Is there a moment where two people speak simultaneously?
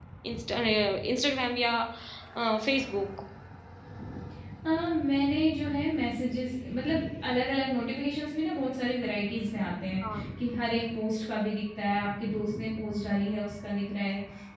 No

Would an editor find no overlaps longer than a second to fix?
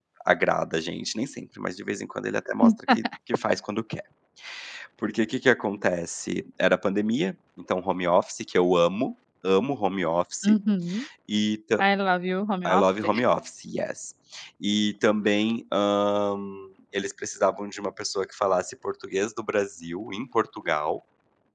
Yes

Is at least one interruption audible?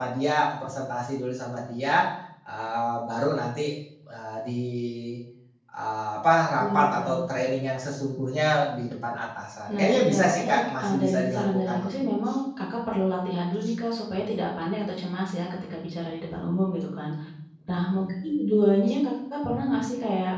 Yes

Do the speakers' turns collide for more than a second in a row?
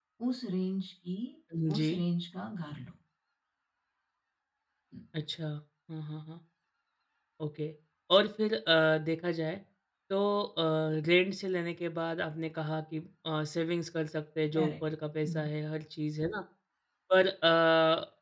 No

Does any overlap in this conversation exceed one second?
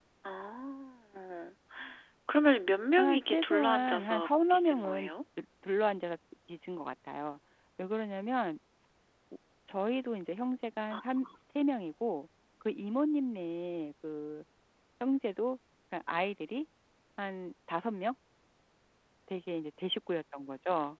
Yes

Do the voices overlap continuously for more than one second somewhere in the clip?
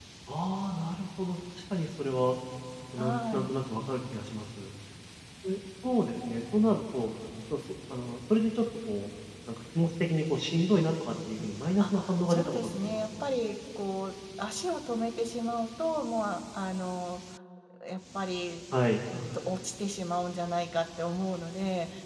Yes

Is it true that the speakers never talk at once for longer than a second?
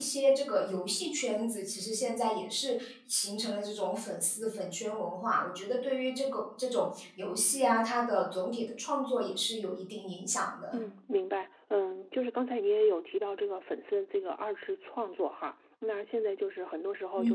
Yes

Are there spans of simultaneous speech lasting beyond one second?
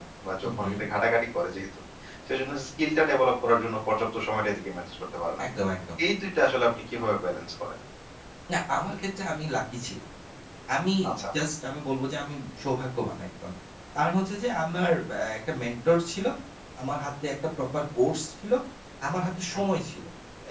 No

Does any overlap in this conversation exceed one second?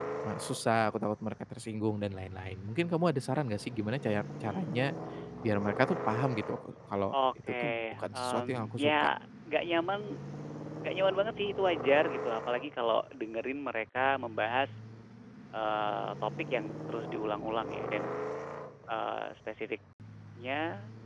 Yes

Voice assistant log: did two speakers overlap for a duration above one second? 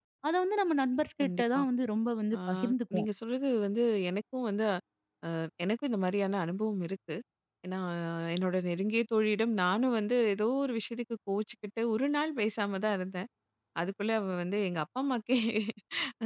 No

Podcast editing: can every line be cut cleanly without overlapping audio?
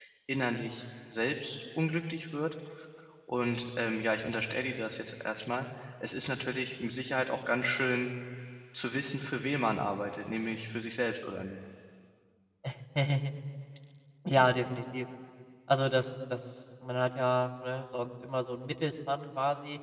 Yes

